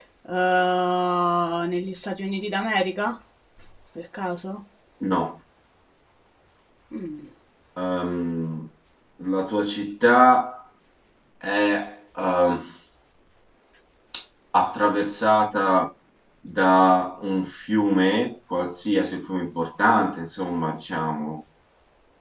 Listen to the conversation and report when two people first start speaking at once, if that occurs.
none

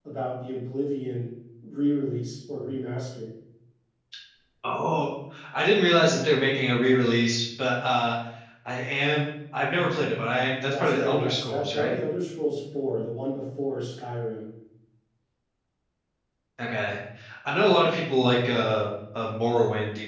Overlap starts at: 10.7 s

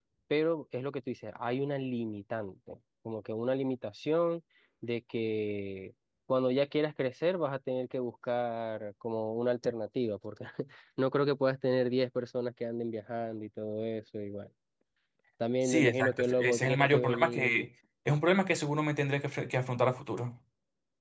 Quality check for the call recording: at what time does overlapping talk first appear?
15.6 s

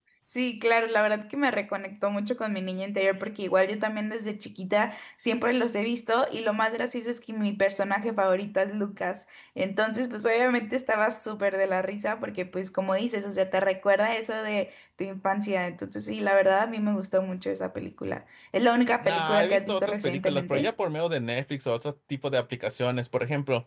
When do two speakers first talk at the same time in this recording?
19.0 s

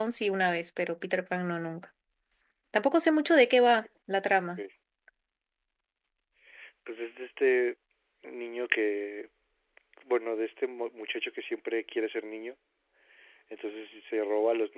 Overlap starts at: none

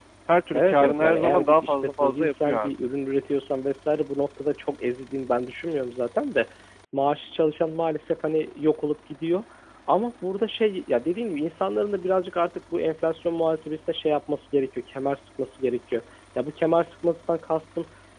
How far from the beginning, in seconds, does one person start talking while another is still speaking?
0.5 s

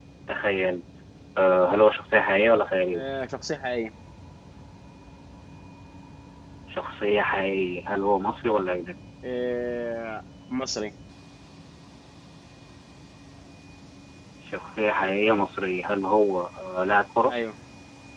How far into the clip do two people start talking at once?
none

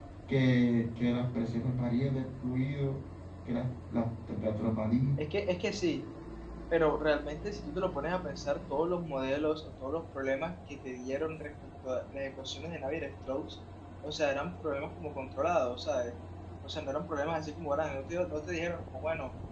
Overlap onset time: none

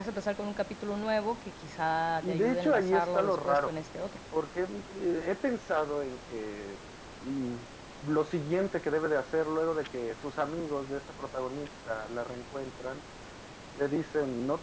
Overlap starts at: 2.2 s

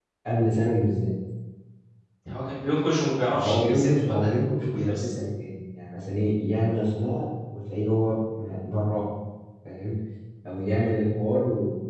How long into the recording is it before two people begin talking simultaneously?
3.3 s

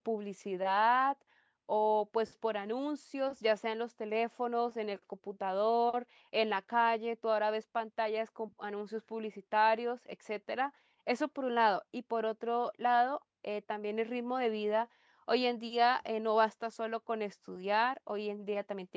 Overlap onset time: none

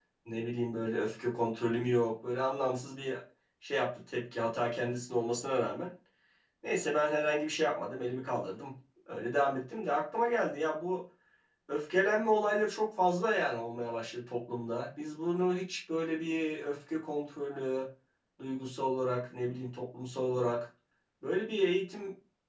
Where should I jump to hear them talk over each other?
none

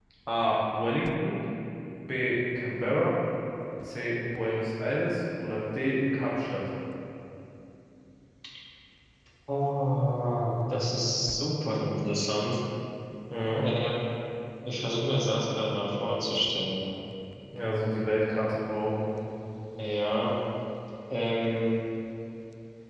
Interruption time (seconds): none

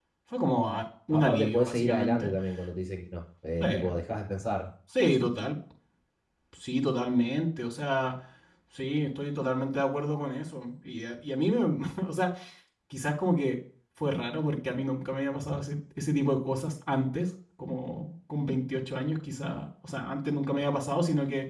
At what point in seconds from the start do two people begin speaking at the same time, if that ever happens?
1.1 s

